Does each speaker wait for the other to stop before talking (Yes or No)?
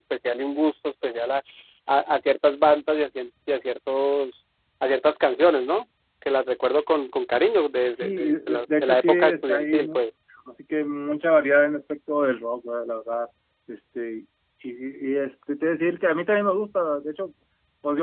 No